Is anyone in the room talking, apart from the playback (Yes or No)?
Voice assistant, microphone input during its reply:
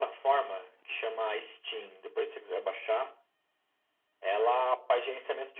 No